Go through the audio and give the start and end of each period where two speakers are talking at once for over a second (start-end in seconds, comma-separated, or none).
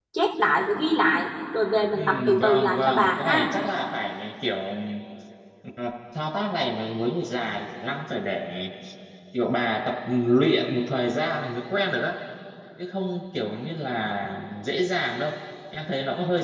1.9-3.5